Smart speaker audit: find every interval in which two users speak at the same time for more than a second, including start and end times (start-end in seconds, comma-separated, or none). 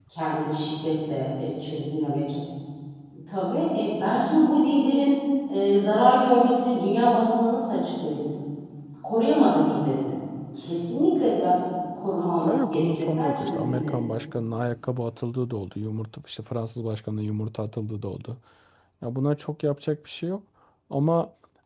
12.5-14.0